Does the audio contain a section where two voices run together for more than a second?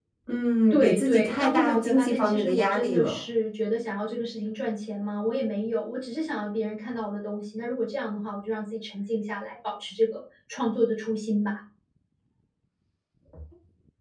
Yes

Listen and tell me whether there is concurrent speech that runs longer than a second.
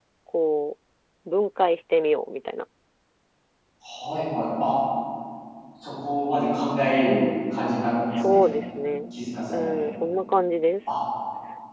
No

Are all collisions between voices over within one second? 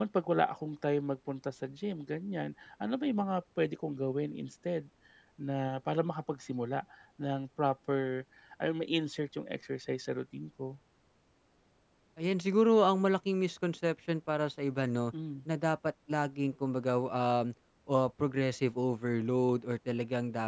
Yes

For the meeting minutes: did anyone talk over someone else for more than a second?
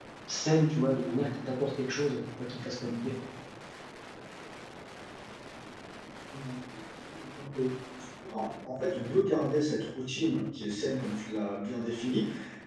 No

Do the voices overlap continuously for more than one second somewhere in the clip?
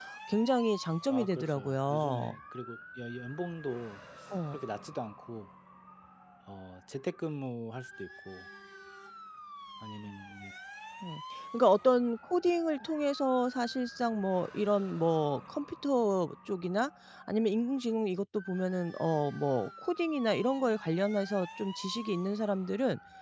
Yes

